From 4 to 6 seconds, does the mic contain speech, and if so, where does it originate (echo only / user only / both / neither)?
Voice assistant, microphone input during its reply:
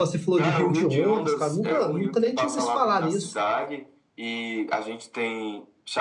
echo only